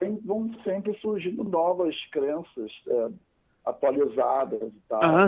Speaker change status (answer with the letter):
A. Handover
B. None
A